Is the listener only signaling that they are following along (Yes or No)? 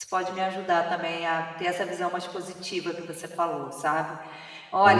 Yes